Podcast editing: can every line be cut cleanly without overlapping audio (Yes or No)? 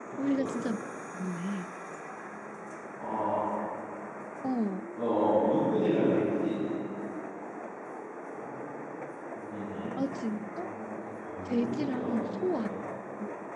No